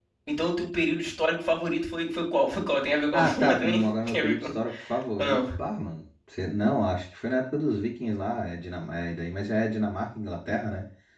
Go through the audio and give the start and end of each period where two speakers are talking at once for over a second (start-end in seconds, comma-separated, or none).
3.1-4.5